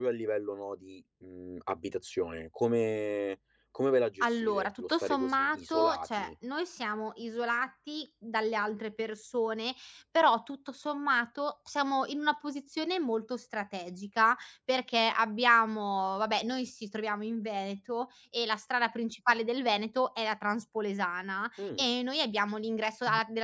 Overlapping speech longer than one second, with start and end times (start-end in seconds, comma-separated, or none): 4.4-6.3